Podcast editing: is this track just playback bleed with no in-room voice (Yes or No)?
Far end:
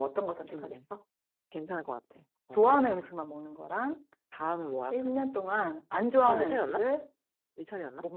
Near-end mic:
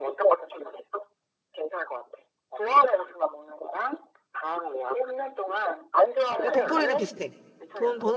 No